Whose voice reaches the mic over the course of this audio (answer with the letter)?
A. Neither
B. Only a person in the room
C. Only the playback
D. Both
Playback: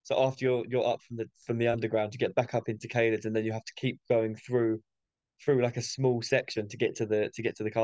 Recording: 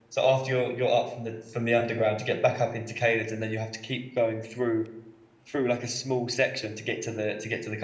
C